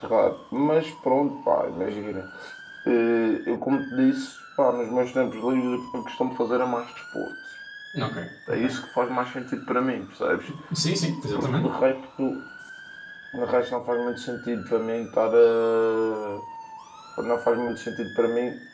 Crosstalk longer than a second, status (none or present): none